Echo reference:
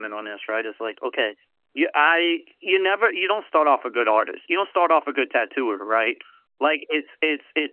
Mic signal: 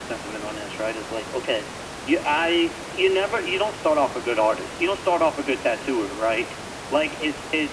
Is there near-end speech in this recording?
No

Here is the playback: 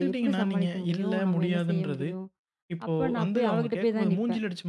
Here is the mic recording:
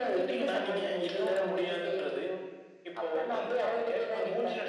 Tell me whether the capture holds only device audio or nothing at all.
Yes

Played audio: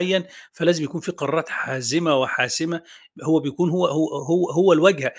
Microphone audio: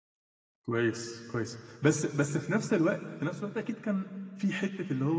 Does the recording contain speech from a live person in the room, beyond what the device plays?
Yes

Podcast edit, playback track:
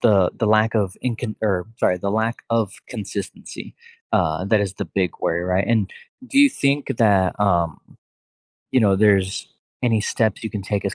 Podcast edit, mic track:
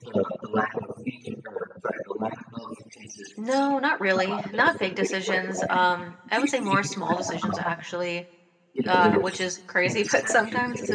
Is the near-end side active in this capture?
Yes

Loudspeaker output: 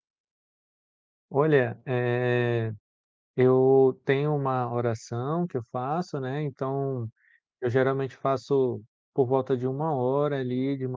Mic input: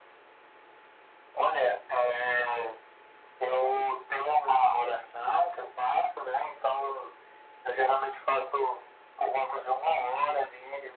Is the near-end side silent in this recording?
Yes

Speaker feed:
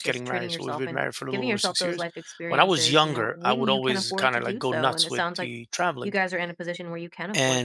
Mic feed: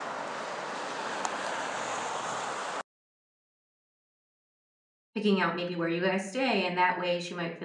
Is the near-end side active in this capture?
Yes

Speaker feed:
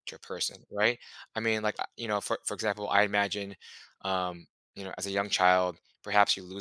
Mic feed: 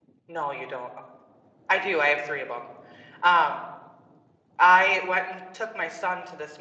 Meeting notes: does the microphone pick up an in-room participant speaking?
Yes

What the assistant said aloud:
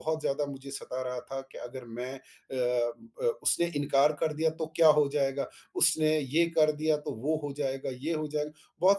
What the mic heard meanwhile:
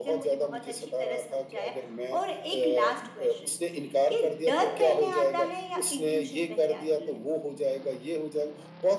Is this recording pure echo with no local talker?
No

